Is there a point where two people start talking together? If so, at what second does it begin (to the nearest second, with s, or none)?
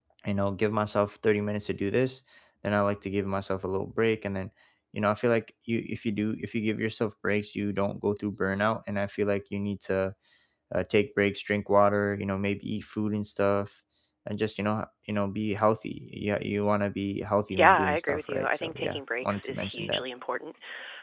18 s